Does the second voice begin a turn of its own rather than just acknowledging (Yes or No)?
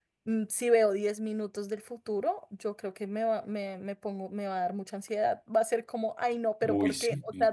No